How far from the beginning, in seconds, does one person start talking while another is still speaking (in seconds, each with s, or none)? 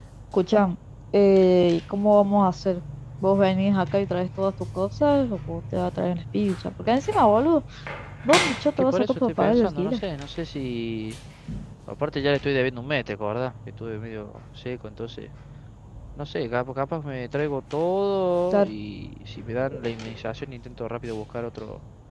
8.8 s